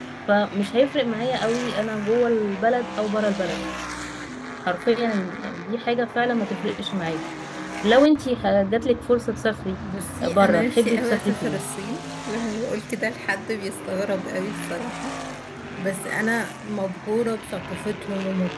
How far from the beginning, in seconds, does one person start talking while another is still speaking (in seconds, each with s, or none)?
10.2 s